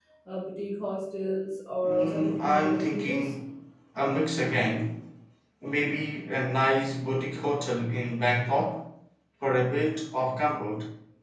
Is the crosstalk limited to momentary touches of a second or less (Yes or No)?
No